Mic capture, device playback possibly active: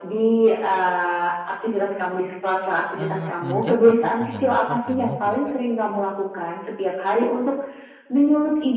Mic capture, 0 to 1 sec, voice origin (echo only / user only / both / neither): echo only